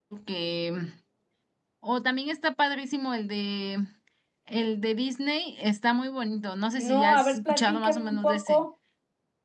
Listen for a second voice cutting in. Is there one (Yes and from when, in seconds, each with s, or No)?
Yes, from 6.8 s